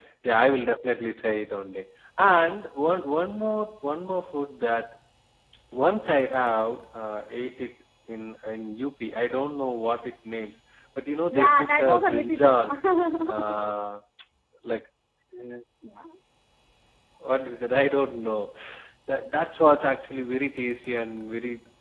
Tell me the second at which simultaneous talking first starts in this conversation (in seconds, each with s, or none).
11.3 s